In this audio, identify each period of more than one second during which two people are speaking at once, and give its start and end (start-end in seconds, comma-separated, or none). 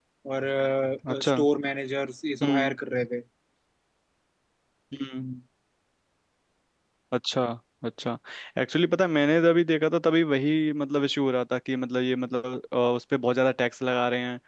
none